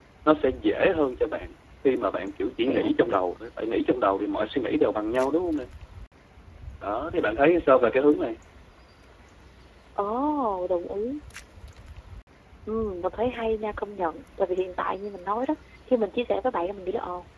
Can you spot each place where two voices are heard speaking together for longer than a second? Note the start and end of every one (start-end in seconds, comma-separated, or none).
none